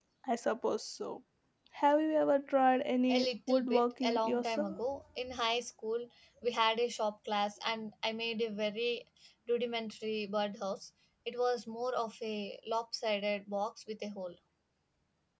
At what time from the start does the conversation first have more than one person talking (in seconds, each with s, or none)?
3.1 s